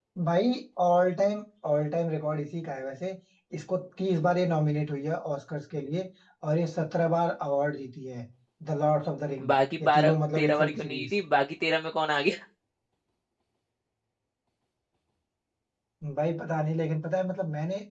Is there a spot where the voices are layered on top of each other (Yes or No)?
Yes